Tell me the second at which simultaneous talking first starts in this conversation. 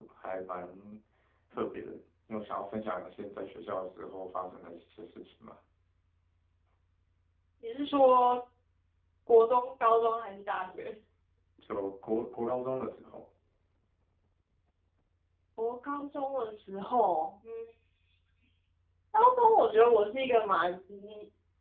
none

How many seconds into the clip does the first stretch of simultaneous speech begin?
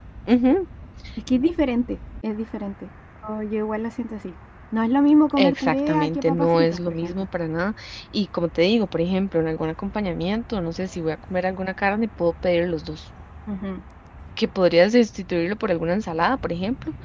5.4 s

